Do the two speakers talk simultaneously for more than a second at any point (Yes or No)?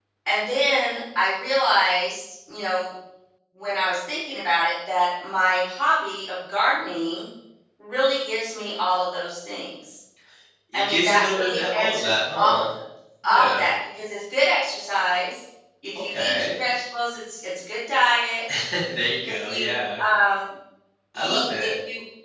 Yes